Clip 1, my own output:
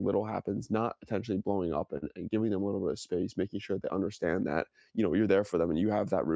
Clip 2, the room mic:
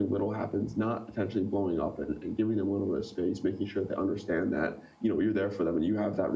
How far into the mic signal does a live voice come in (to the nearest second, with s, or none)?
none